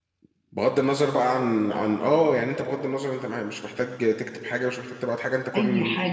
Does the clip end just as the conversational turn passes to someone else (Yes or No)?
Yes